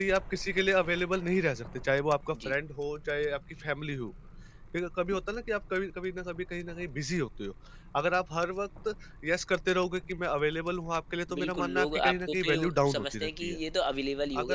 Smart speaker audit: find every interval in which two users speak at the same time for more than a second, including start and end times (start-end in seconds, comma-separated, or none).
11.4-13.6